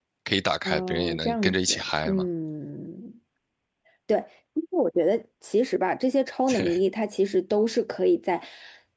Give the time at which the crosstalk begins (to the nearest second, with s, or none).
1 s